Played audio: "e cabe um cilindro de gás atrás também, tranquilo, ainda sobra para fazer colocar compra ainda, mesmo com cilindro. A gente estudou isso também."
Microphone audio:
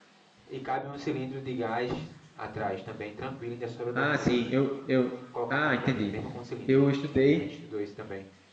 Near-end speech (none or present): present